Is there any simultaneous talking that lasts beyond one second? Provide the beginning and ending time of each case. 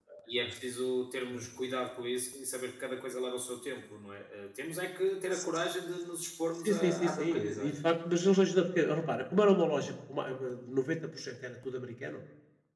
6.5-7.9

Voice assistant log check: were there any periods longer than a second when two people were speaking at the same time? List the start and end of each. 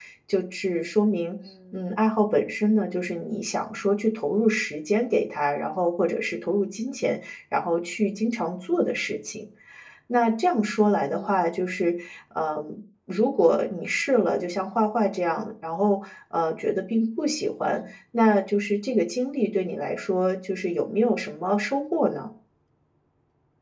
none

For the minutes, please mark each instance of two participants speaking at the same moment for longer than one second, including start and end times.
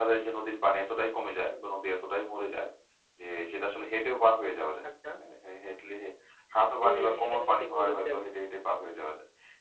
6.8-8.1

